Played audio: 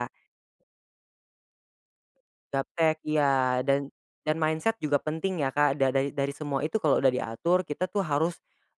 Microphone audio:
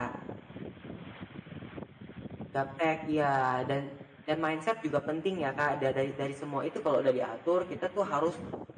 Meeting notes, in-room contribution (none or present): none